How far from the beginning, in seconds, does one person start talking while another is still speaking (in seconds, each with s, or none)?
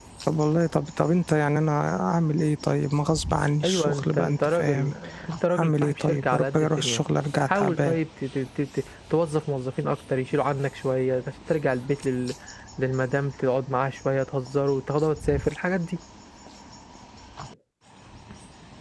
3.6 s